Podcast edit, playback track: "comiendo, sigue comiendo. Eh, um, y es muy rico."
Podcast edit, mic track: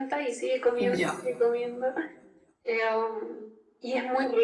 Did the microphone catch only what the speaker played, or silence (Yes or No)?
No